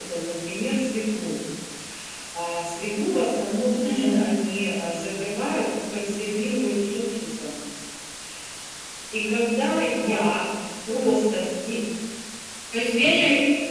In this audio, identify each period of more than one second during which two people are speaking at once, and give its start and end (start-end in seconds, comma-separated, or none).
none